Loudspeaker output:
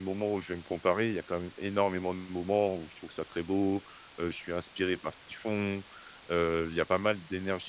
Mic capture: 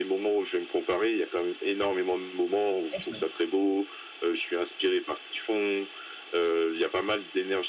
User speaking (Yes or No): Yes